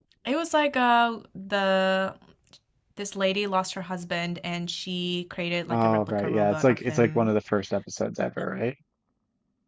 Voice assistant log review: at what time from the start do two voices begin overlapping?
6 s

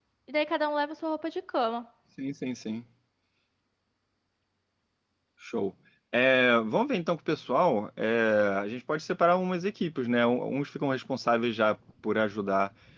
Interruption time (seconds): none

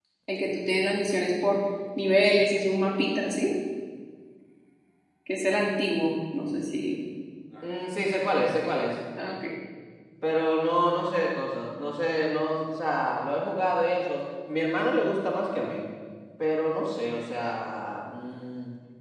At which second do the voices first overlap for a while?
none

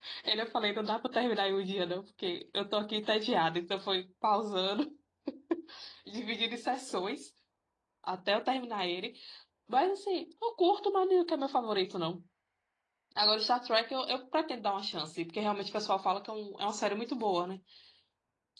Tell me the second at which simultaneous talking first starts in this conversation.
none

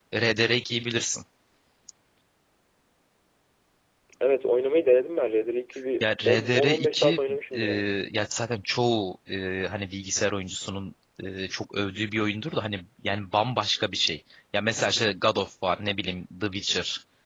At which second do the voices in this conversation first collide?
6 s

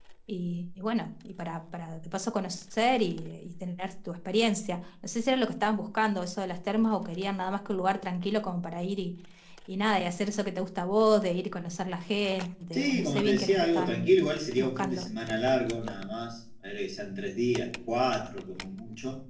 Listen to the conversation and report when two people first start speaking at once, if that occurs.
13 s

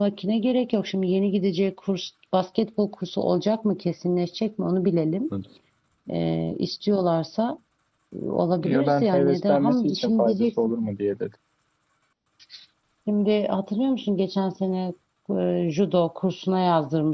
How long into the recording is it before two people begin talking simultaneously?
9 s

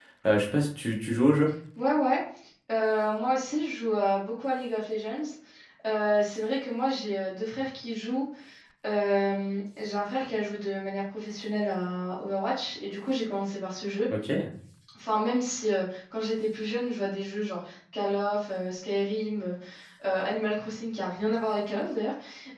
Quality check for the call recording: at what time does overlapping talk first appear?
none

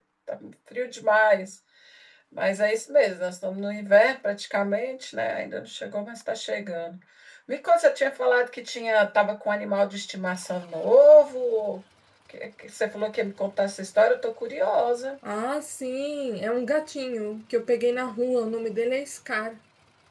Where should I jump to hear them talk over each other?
none

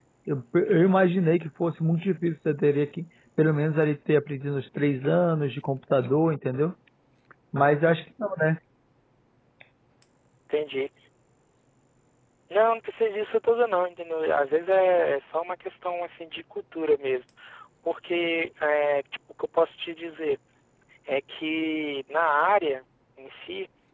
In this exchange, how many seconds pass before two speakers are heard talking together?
none

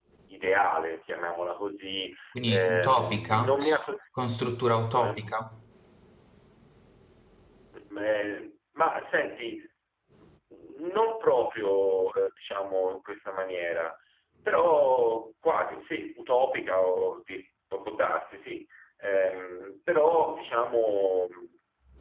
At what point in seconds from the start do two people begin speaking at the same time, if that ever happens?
2 s

